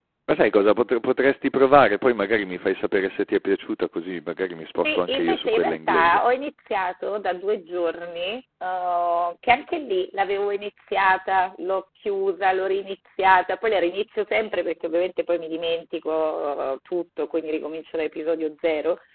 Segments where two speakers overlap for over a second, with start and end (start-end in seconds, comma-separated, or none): 4.8-6.2